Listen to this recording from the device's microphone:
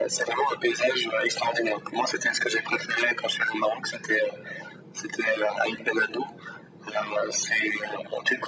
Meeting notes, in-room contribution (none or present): none